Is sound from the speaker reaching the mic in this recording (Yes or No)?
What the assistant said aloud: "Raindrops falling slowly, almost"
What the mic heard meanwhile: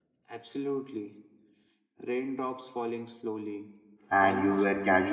Yes